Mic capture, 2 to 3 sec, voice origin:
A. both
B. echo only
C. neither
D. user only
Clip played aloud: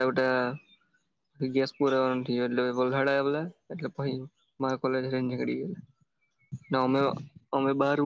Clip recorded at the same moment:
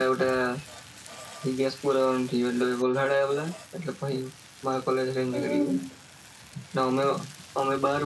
B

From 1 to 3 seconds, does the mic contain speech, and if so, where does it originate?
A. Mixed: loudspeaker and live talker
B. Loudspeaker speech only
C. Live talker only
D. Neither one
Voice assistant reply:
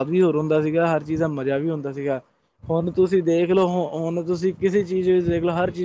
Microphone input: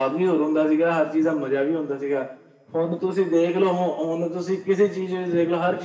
B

